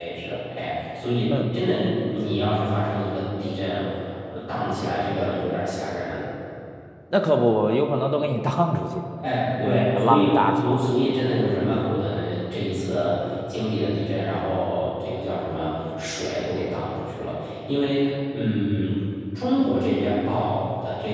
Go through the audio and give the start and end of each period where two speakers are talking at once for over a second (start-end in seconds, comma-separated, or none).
9.6-10.9